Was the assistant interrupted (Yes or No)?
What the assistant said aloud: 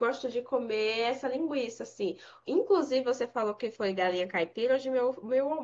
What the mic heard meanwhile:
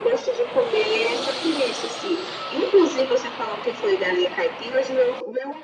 No